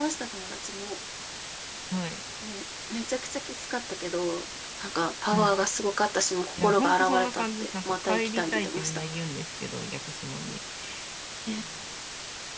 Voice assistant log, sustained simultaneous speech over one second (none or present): present